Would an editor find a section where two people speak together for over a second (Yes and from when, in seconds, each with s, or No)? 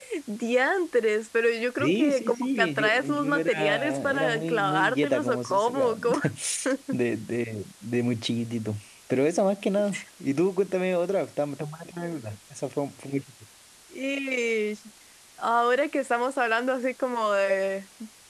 Yes, from 1.8 s